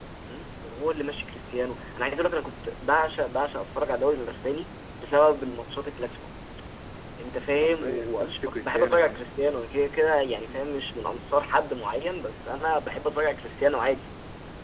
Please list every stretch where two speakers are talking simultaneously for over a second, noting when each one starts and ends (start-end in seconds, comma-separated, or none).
7.6-9.2